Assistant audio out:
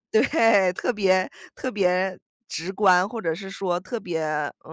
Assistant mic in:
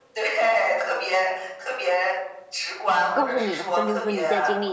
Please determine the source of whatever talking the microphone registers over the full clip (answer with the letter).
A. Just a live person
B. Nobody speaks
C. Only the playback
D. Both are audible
D